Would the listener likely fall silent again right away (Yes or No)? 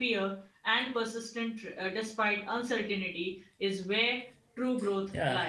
No